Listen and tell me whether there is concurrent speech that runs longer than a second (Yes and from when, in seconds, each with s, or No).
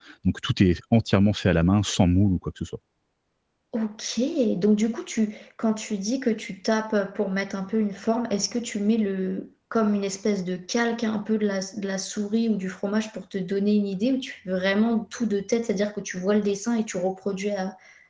No